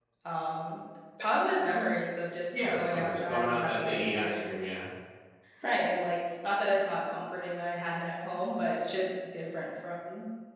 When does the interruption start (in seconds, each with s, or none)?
2.5 s